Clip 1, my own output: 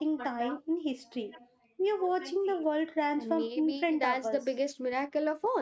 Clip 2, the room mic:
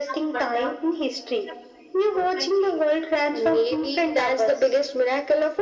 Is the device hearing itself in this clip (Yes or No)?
Yes